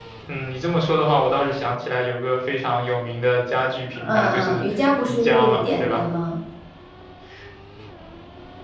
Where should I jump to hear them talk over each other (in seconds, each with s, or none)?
4.0 s